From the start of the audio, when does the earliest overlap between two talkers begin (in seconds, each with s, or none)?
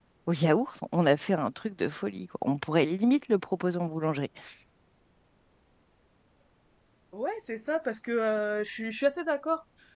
none